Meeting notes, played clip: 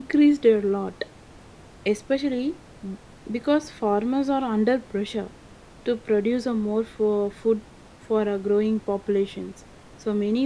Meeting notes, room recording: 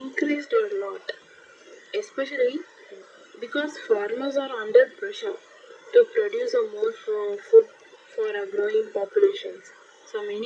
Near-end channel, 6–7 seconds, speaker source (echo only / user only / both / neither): echo only